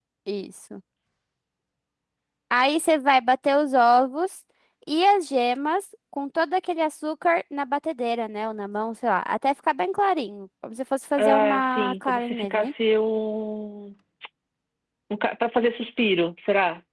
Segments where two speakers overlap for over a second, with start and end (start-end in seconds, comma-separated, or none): 11.2-12.7